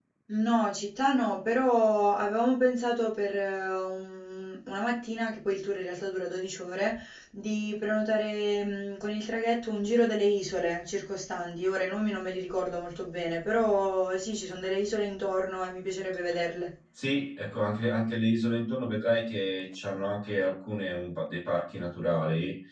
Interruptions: none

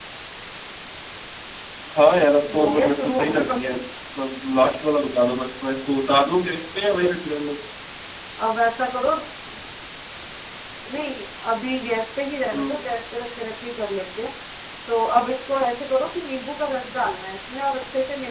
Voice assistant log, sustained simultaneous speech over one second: present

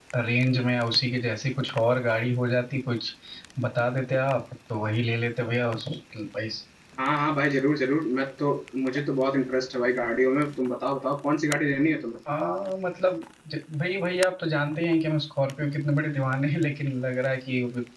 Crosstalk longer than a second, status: none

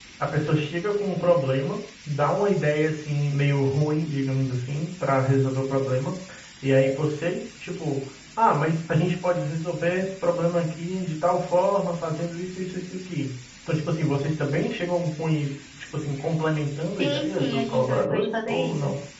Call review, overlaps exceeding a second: present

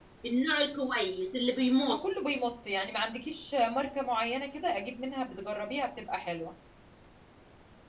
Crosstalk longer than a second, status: none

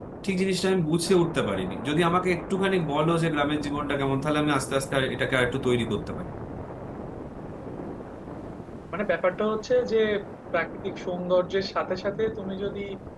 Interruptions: none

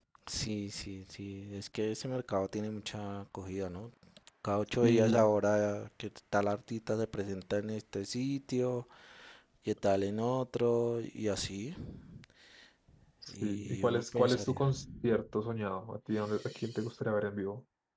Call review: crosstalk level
present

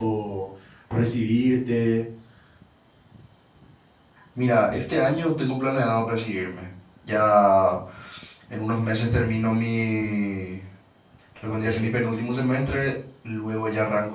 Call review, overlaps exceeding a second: none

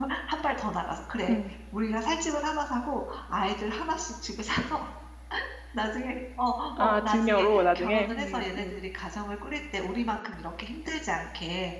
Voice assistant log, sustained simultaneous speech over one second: present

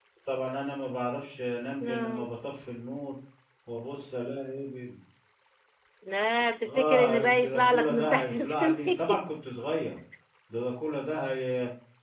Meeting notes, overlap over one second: present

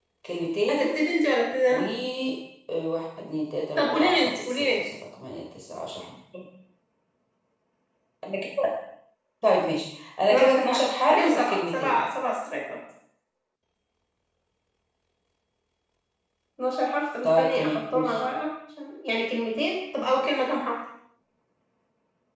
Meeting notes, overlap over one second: present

